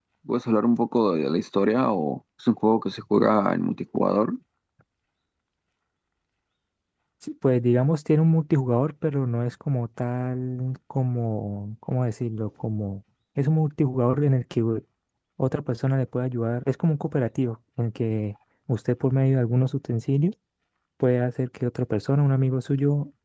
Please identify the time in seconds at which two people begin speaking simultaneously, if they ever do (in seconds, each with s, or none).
none